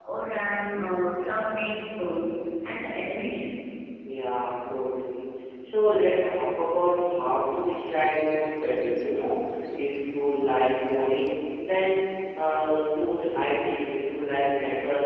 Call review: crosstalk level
none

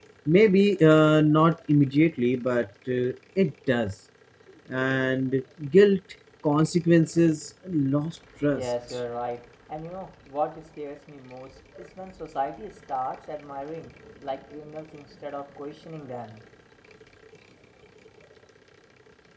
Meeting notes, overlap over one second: none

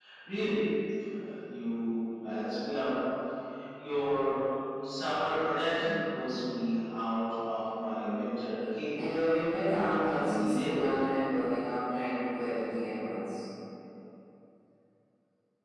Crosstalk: present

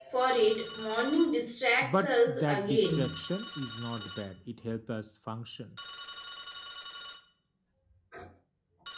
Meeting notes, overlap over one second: present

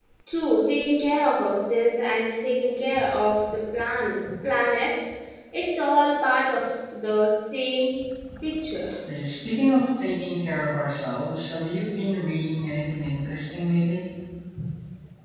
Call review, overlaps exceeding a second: none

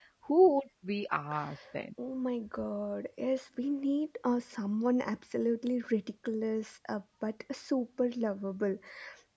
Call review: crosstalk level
none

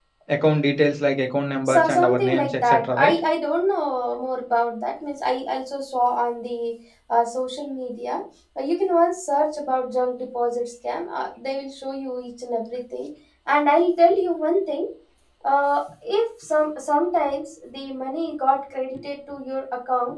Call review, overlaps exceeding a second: present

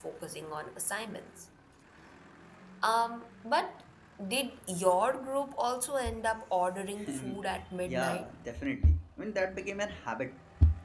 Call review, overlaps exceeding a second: present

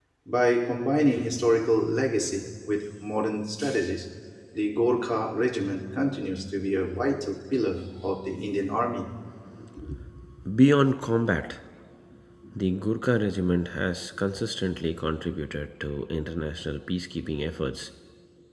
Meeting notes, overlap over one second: none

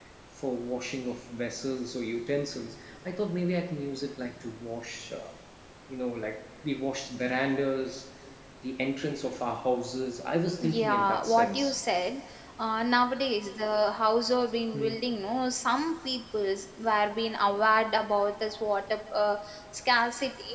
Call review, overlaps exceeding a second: present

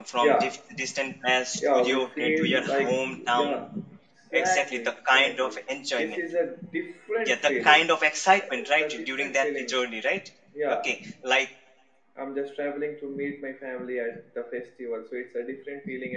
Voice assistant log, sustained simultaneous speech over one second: present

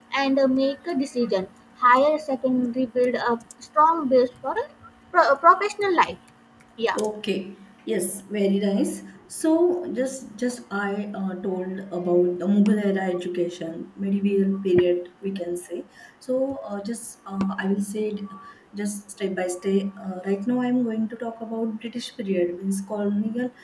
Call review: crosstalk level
none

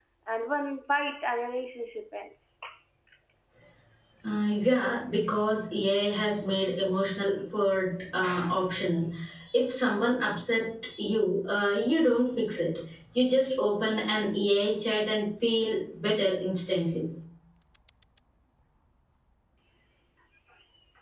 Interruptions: none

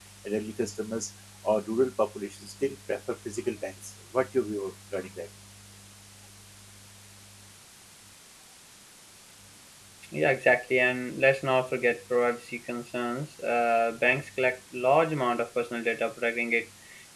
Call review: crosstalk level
none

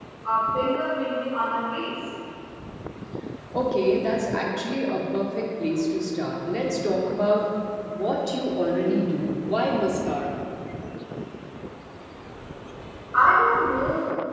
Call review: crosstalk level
none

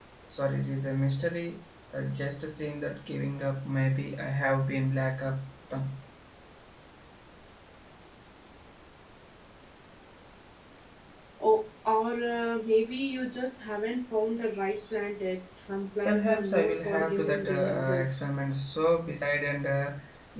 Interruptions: present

